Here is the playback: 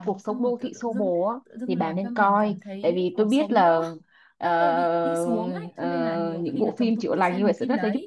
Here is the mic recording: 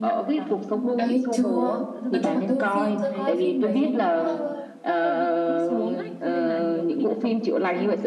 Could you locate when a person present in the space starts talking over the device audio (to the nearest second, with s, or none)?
1 s